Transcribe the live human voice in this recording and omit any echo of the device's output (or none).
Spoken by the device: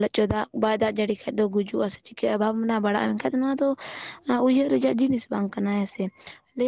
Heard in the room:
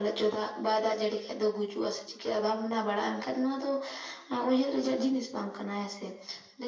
none